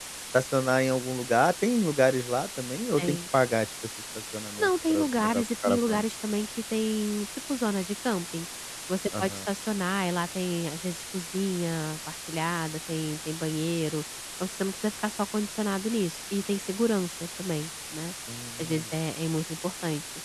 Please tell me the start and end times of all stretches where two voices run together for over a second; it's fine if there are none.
4.6-6.0

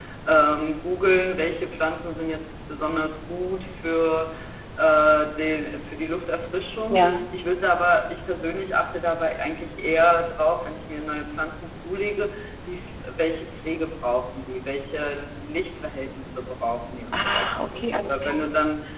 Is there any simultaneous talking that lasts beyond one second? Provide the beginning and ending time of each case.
17.1-18.4

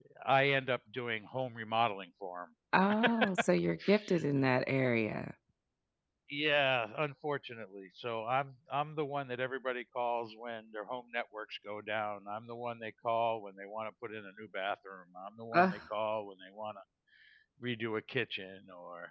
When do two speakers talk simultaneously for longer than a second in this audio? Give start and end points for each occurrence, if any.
none

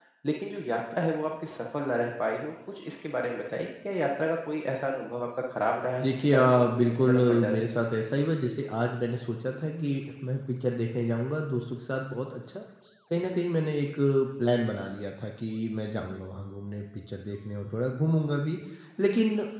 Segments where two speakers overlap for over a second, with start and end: 6.0-7.6

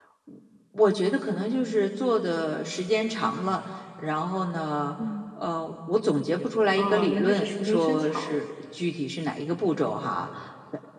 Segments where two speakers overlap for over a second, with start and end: 6.8-8.4

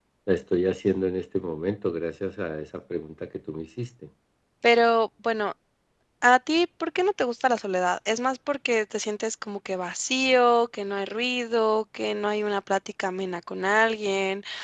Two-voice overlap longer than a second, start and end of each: none

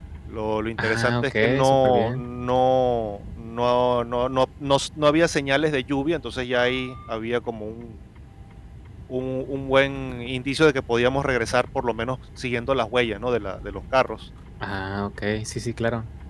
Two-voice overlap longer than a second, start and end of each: 0.8-2.2

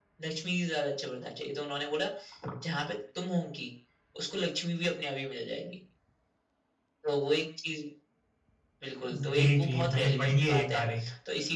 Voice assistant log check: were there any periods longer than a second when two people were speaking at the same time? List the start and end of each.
9.1-10.9

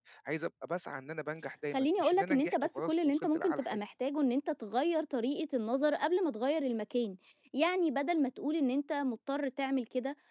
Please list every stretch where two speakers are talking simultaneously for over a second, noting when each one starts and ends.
1.7-3.8

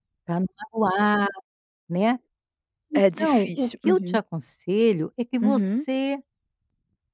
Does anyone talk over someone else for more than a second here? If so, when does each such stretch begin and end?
3.0-4.2

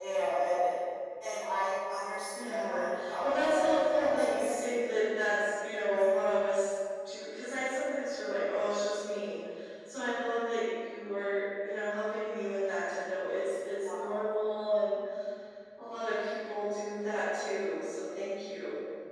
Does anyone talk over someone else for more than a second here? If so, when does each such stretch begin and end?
2.3-5.0

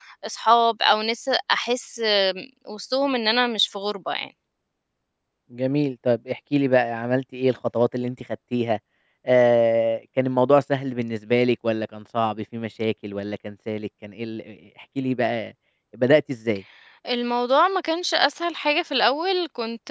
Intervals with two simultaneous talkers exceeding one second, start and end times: none

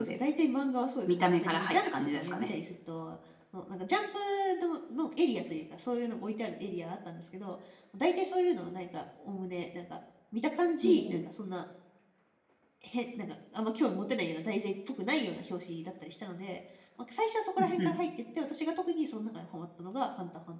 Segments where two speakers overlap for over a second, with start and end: 1.1-2.5

